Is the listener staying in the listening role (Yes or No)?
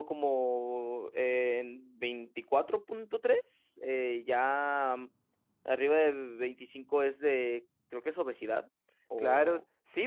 No